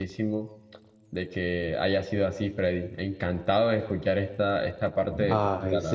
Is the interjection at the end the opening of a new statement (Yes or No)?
Yes